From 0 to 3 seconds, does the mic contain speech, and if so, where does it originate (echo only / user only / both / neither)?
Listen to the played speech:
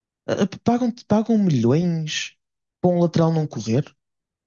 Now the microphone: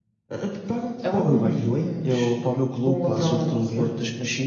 both